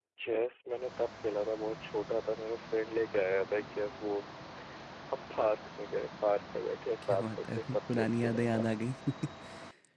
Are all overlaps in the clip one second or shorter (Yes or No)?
No